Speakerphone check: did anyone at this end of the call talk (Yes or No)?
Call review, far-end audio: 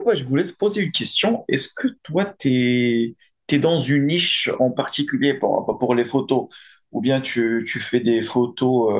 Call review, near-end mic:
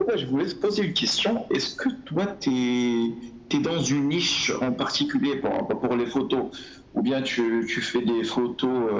No